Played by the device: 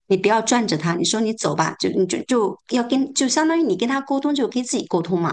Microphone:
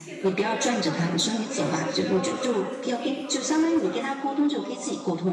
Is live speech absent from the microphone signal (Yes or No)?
No